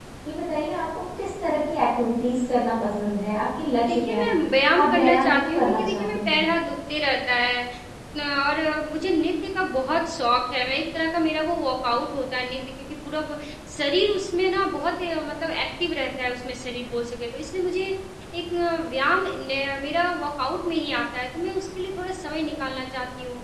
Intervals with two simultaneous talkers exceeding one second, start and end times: 4.8-6.4

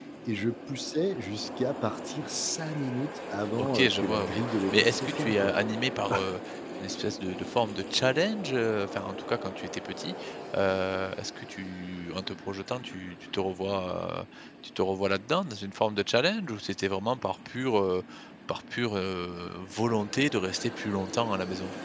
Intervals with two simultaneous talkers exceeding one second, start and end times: 3.6-5.5

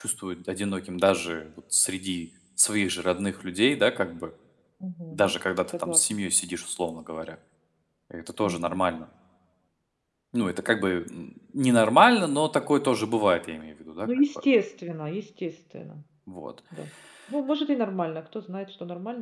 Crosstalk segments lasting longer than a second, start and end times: none

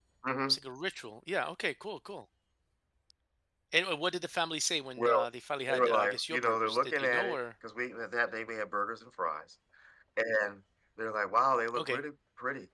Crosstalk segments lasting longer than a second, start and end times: 5.7-7.4

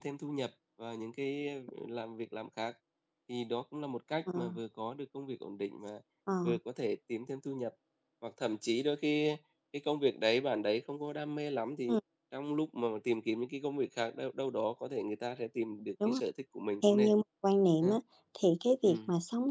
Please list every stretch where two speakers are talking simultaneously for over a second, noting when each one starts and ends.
none

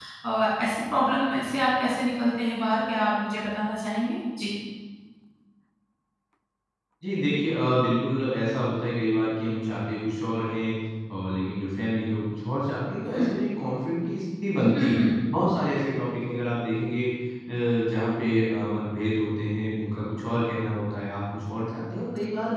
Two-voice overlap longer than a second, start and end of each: none

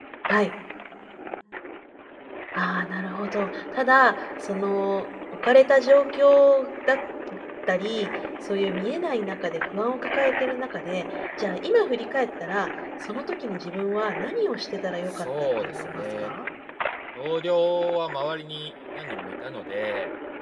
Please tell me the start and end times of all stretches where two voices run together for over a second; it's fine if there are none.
15.1-16.3

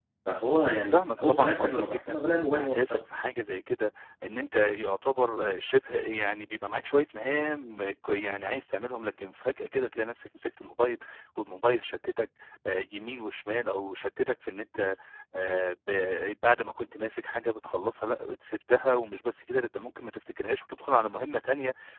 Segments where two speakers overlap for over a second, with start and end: 0.9-3.0

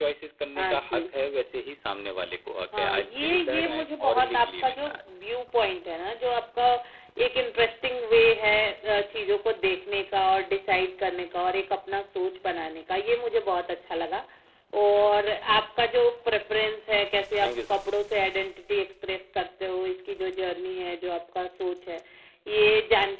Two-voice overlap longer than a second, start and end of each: 2.8-5.0

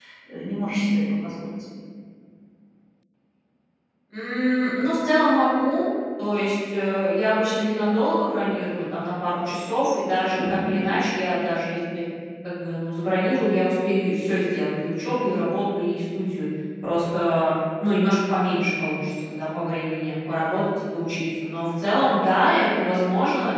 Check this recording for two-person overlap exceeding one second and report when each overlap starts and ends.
none

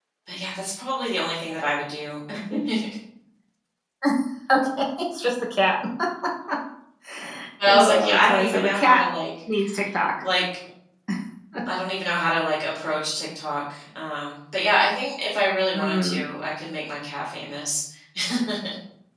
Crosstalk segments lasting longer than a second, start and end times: 7.7-9.0

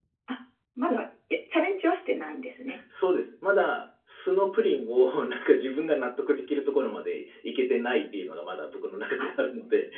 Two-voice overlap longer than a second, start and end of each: none

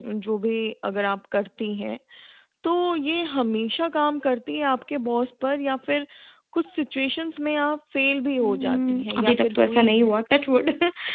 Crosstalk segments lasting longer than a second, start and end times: 8.4-10.1

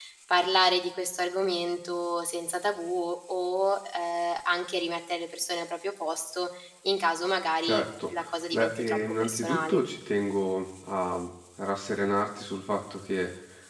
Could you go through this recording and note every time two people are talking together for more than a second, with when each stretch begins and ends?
8.5-9.8

